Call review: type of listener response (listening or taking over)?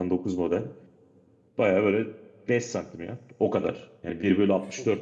listening